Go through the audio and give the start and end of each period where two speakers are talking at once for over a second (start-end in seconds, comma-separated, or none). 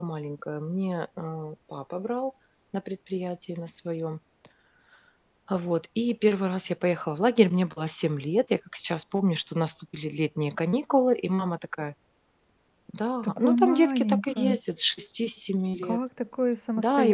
13.2-14.6